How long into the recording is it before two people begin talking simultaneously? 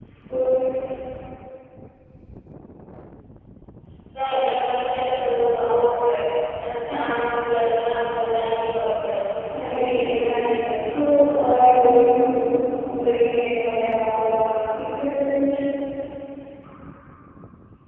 9.5 s

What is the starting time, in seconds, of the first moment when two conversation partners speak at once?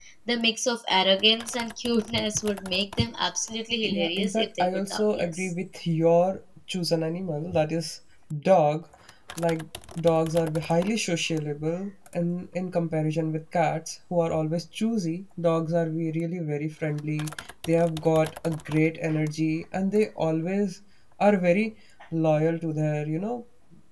3.8 s

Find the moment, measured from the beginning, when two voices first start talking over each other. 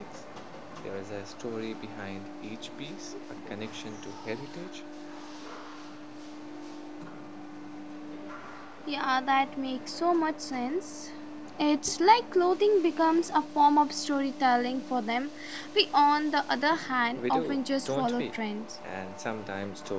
17.2 s

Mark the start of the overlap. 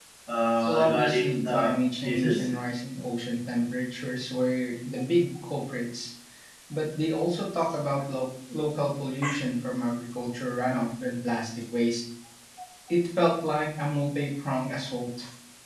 0.7 s

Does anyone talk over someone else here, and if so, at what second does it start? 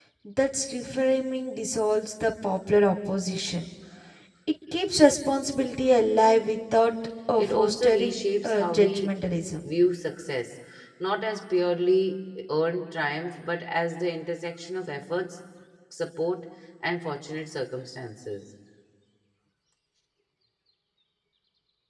7.4 s

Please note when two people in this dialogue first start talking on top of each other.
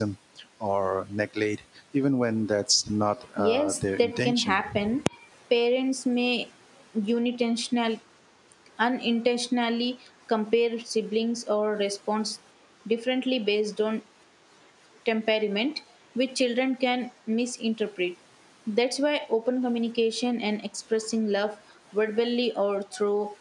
3.4 s

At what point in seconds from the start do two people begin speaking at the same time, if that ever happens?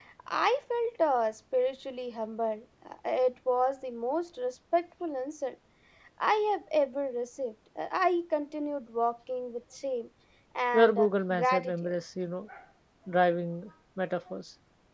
10.7 s

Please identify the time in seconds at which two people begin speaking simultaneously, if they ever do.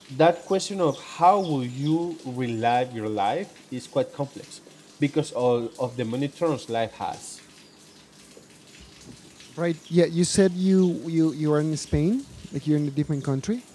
none

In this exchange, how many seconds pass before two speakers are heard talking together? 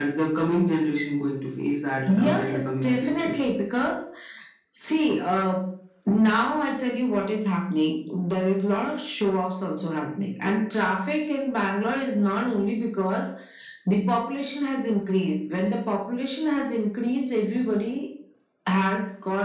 2.0 s

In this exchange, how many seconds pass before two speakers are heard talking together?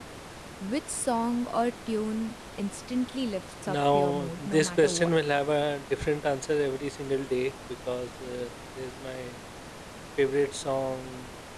3.7 s

